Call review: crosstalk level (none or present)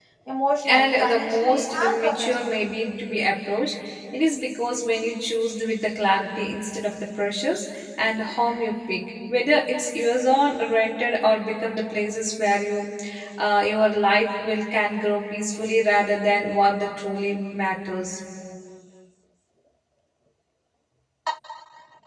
present